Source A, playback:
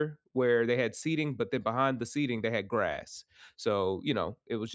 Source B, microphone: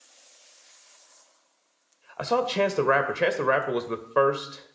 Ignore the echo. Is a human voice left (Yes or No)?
Yes